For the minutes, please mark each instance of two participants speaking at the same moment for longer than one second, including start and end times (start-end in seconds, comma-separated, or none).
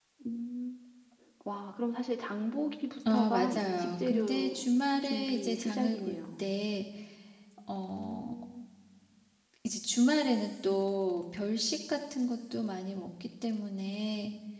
3.1-4.6, 5.0-6.5